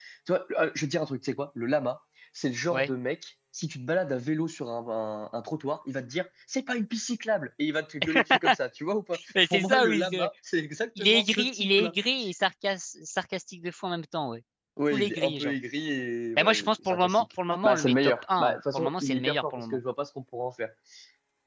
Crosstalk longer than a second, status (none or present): present